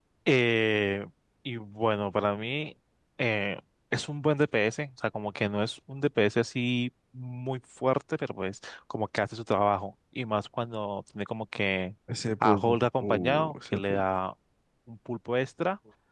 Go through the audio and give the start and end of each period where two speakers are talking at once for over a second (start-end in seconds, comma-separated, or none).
12.4-14.0